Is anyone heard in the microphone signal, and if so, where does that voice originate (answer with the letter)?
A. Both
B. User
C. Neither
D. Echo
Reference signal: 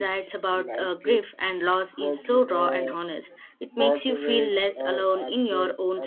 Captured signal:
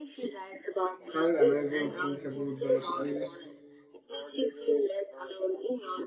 A